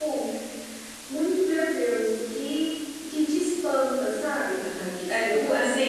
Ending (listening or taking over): taking over